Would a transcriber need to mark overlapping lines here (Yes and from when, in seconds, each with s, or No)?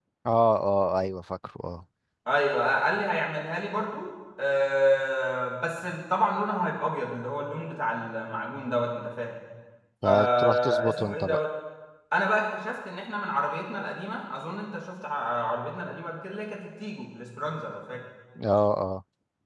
Yes, from 10.0 s